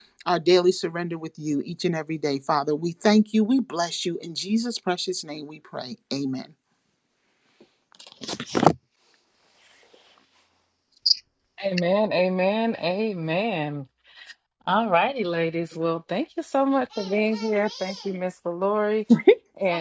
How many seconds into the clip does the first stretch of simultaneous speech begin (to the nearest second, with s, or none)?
none